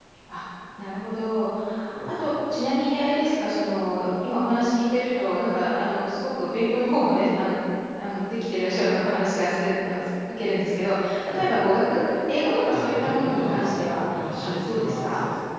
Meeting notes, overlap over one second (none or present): present